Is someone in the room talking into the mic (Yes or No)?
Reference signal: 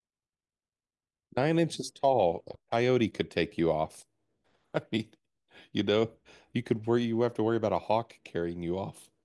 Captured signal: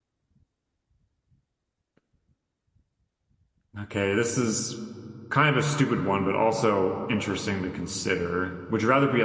Yes